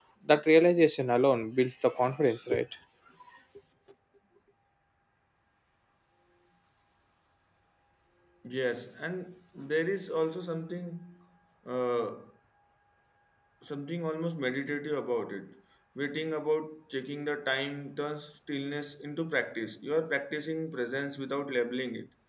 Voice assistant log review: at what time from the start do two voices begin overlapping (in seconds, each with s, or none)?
none